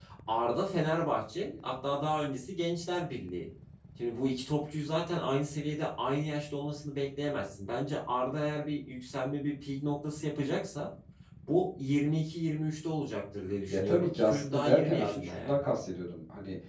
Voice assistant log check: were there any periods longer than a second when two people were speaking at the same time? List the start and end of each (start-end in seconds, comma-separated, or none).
13.7-15.6